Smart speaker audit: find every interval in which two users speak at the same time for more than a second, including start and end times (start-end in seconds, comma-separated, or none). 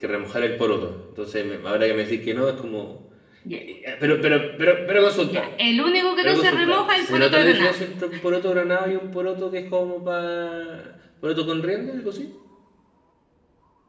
6.2-7.8